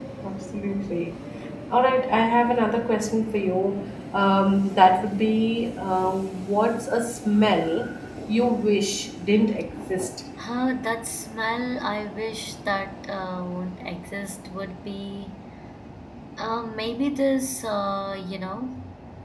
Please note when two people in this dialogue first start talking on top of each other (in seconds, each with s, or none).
none